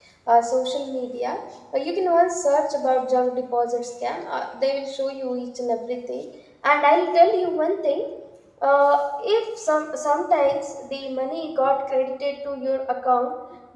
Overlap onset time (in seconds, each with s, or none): none